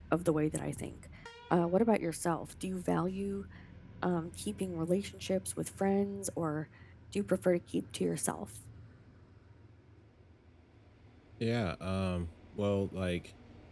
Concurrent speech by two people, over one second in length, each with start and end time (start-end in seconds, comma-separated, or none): none